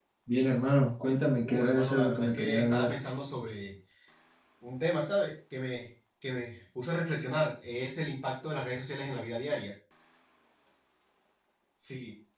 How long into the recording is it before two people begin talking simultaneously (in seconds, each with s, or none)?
1.4 s